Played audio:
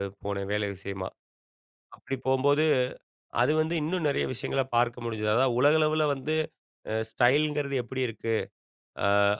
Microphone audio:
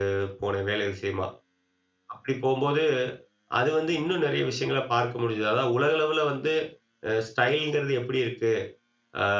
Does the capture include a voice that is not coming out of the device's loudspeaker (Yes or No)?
No